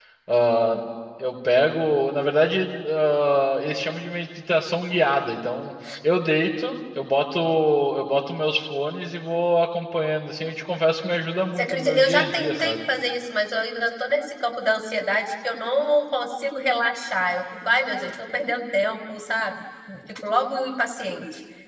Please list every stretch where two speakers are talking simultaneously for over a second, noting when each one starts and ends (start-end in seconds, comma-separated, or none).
11.6-12.8